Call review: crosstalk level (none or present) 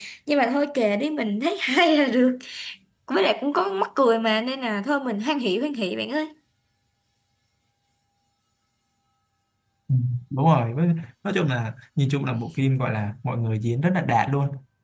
none